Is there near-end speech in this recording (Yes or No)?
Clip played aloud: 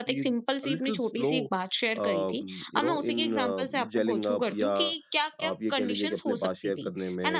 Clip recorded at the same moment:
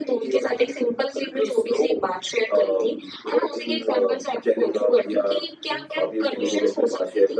Yes